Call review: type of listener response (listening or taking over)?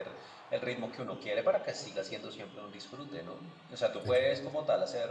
listening